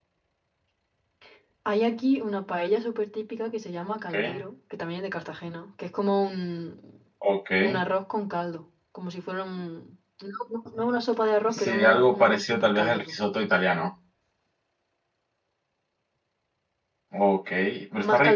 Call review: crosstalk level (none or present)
present